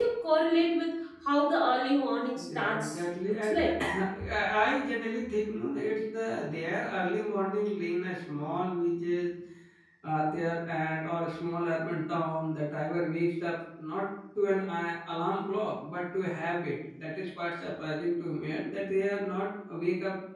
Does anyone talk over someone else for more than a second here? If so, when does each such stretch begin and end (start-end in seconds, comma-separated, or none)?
2.4-3.6